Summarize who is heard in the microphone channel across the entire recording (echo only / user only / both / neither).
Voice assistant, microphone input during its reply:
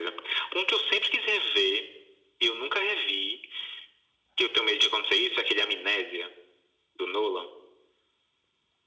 echo only